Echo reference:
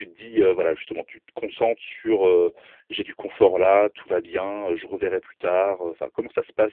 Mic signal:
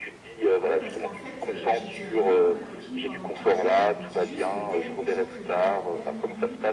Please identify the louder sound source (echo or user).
echo